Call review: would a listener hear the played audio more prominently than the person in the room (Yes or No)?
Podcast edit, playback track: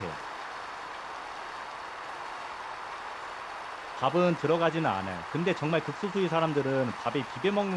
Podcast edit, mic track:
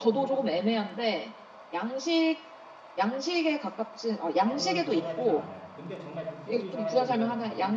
No